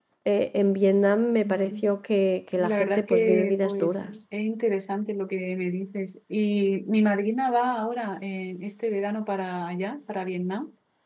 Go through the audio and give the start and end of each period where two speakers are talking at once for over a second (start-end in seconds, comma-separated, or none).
2.5-4.1